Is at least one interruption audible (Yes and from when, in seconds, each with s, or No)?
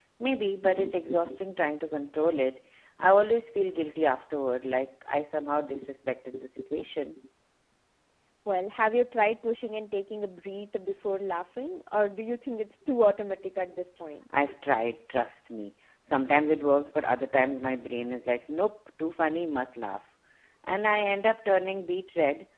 No